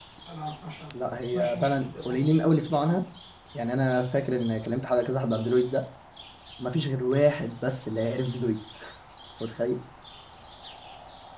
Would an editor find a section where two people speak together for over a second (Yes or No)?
Yes